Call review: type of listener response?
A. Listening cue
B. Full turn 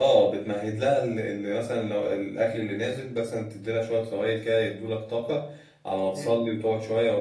A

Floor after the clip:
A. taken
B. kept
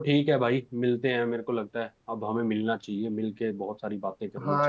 A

